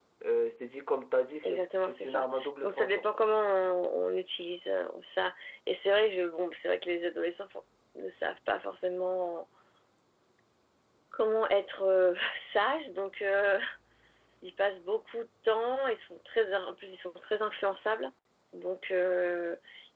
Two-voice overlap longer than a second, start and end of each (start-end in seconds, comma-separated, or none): 1.4-3.0